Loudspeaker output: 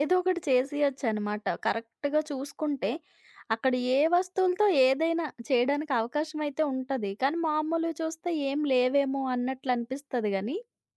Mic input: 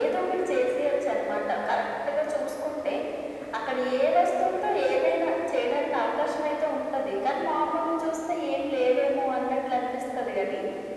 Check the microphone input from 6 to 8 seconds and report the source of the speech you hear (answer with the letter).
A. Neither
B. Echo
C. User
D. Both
B